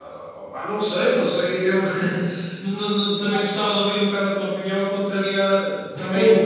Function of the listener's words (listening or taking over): taking over